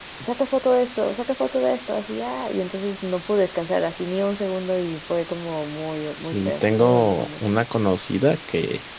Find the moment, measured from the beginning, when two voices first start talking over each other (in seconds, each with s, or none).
6.2 s